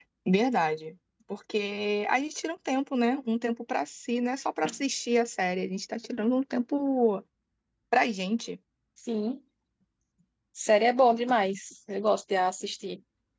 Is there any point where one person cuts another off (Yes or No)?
No